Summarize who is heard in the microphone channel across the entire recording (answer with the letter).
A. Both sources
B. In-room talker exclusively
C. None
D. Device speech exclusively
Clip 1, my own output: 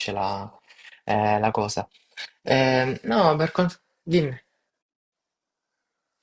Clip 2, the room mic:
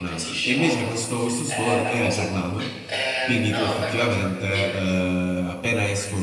A